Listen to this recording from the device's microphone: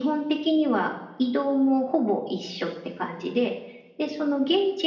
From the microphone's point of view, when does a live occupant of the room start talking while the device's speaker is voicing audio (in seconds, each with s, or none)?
none